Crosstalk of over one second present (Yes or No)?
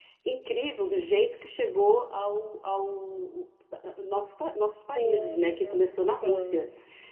Yes